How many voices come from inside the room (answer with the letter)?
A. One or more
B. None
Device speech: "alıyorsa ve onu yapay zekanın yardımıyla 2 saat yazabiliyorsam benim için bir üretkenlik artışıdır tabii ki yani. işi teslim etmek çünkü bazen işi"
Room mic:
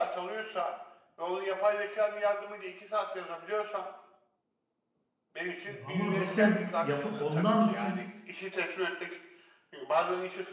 A